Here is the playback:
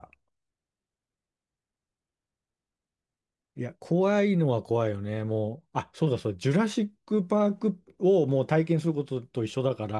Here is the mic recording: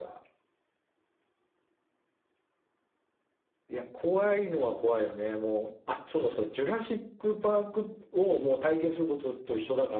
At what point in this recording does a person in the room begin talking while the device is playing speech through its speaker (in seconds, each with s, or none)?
none